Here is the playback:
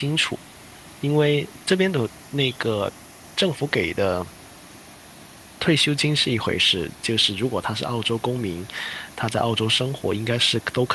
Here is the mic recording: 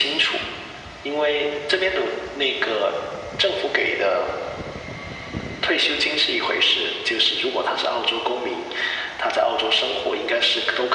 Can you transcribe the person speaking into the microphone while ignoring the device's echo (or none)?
none